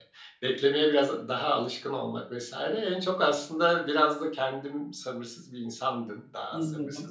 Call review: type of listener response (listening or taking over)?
listening